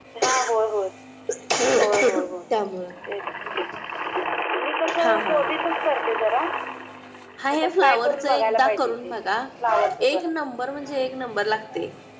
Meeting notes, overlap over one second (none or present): present